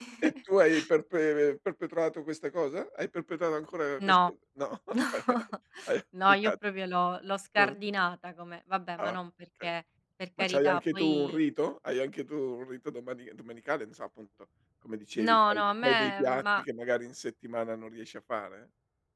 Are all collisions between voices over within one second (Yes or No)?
No